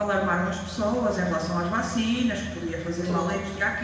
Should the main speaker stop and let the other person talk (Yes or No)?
No